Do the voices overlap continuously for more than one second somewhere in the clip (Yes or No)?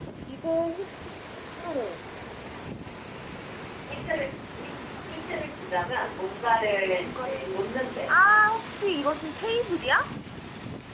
Yes